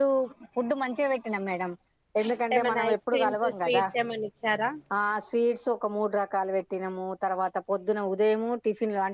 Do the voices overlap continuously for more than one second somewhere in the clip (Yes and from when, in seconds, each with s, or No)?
Yes, from 2.5 s